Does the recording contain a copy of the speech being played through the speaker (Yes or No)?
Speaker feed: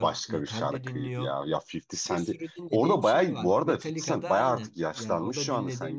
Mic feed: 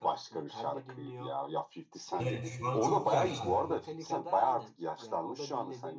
Yes